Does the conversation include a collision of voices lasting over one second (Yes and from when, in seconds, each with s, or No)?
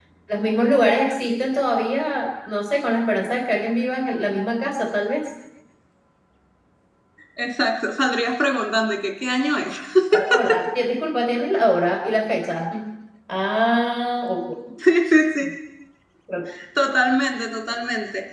No